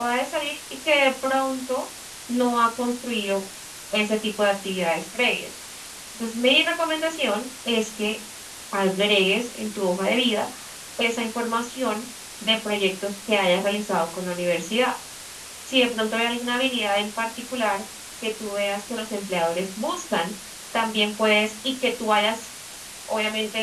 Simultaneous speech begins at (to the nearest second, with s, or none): none